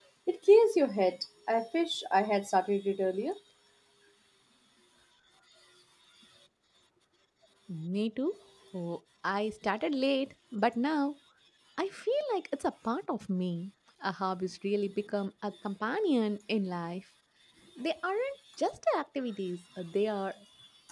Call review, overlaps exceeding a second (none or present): none